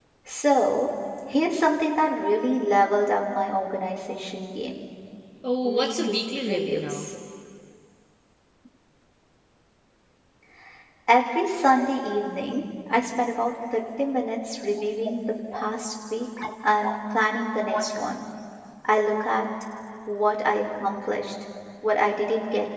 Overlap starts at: 5.6 s

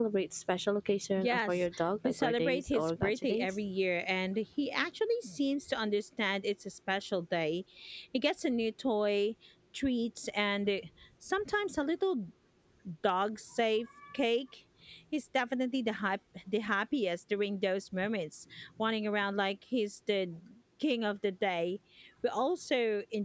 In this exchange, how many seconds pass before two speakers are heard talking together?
1.2 s

